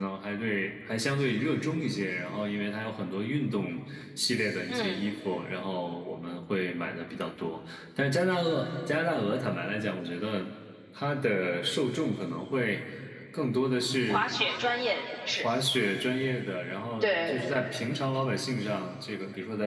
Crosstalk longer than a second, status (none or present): none